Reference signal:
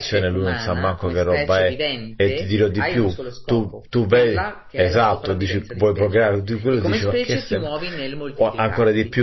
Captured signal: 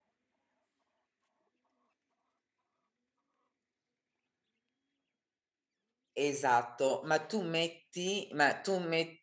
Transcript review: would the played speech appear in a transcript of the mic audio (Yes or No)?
No